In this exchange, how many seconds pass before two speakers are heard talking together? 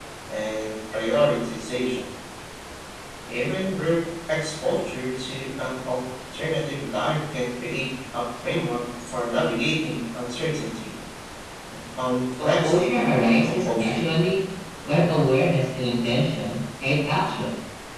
12.4 s

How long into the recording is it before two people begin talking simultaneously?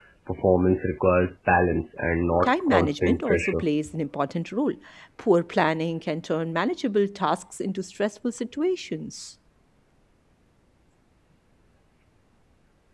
2.4 s

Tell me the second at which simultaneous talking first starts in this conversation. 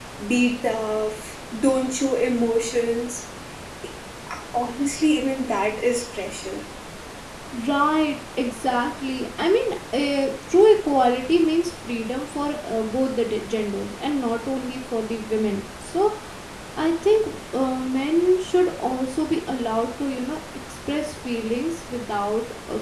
none

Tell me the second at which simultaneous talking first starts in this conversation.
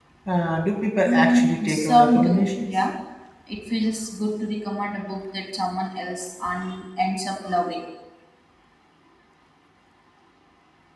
1.1 s

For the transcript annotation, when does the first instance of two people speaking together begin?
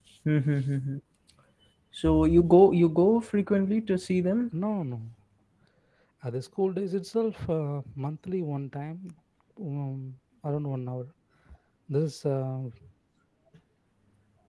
none

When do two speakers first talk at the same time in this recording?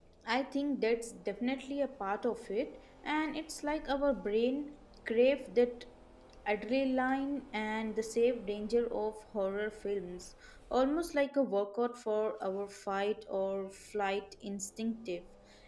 none

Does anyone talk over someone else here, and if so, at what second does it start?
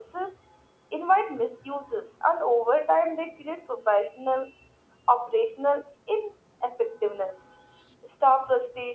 none

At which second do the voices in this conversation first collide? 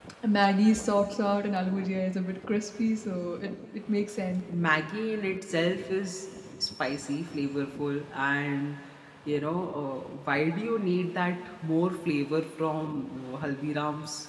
none

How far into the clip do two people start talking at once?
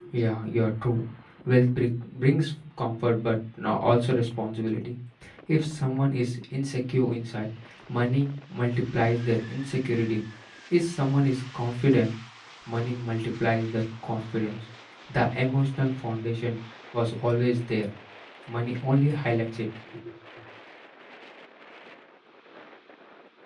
none

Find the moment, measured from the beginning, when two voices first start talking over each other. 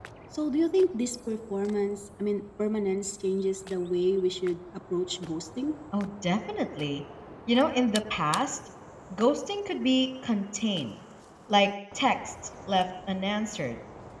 none

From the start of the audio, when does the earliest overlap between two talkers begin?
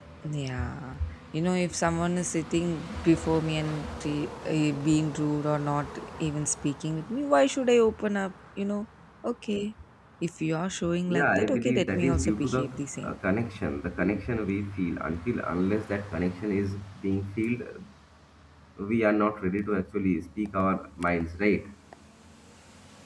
11.1 s

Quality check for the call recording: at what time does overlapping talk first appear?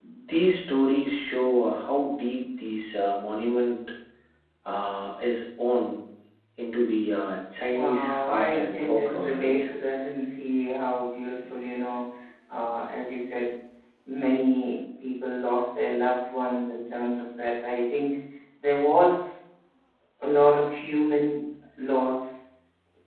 7.6 s

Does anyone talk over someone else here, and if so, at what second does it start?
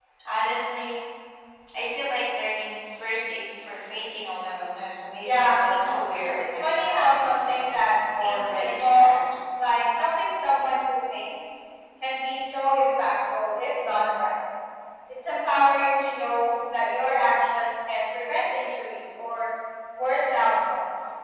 5.2 s

